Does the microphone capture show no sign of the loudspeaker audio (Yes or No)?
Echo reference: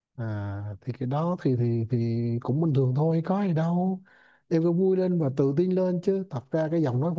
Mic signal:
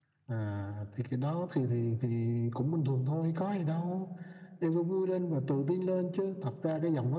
No